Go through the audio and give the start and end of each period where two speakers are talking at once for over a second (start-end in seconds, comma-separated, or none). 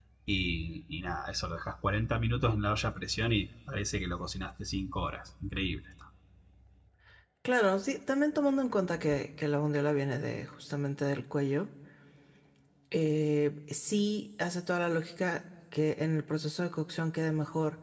none